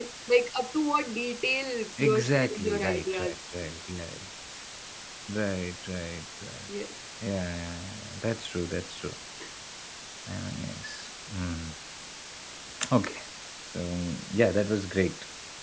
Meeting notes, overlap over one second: present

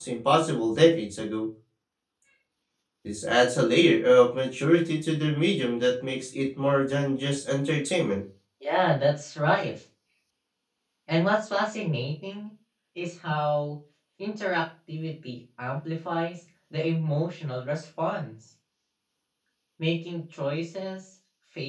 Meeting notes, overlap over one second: none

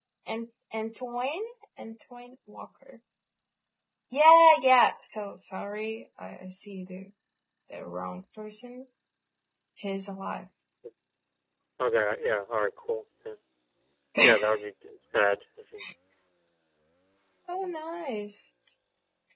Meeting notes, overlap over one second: none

